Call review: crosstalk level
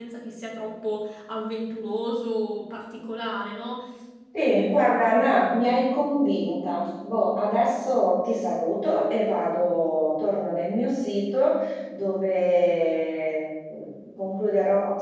none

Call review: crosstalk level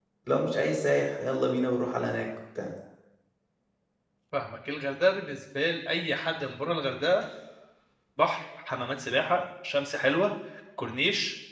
none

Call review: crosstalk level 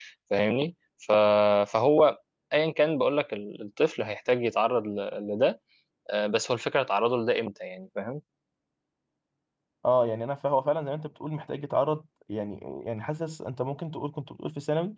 none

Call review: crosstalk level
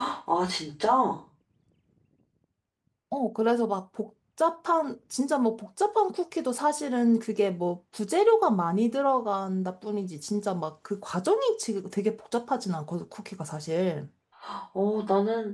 none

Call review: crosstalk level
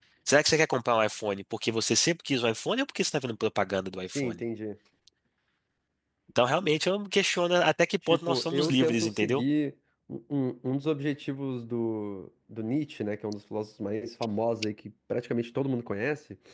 present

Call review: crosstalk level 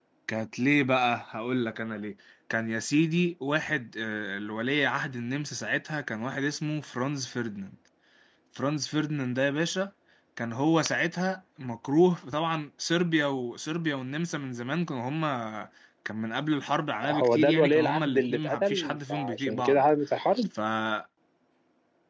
present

